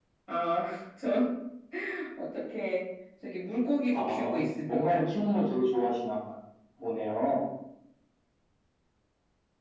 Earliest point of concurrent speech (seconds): 4 s

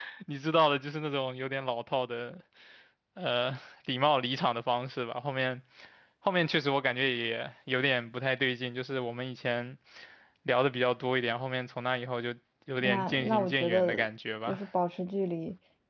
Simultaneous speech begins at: 13 s

